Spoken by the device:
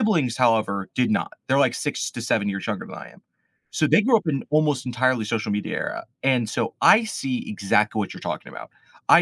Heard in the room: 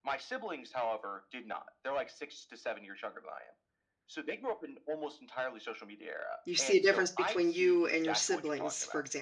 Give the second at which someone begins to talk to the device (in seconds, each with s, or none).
6.4 s